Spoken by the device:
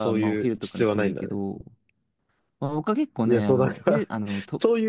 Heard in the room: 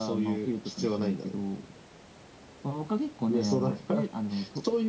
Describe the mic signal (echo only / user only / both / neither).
echo only